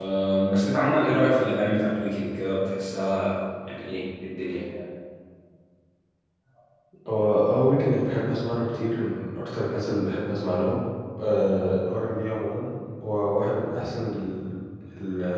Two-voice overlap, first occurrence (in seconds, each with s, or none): none